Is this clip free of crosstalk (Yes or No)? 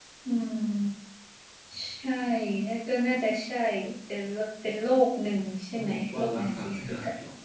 No